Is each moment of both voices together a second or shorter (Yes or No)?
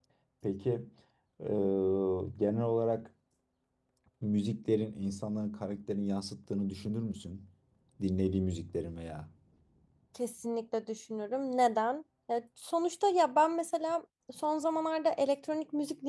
Yes